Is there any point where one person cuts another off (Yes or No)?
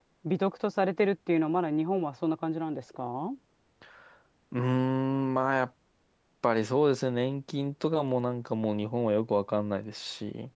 No